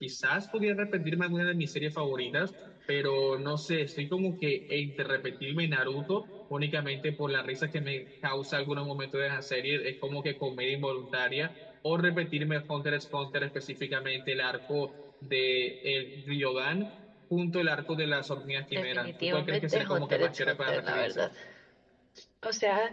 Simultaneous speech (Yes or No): Yes